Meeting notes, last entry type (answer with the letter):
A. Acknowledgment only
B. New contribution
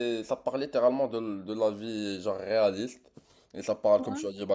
A